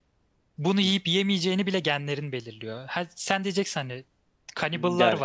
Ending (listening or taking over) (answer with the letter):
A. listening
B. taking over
A